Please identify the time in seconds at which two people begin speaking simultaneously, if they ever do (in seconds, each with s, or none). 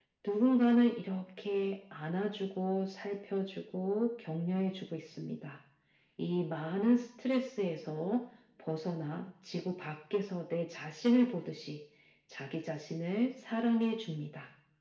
none